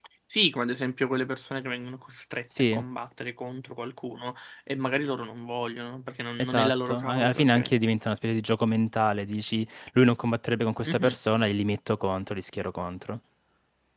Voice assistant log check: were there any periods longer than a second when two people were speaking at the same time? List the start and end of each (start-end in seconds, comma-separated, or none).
6.4-7.7